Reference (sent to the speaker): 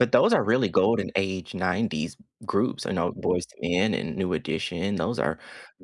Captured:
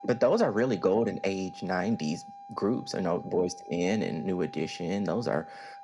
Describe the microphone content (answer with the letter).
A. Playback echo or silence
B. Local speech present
A